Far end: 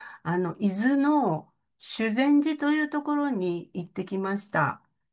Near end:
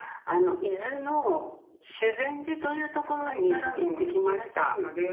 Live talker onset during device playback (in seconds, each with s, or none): 3.0 s